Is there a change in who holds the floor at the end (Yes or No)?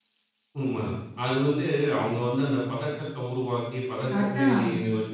No